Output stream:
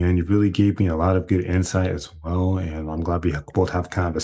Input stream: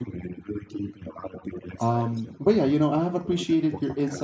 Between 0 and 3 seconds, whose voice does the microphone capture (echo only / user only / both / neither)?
both